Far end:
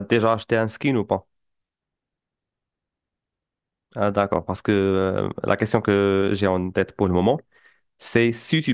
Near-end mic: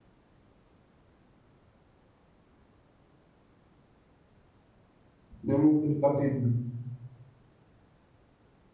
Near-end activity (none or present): present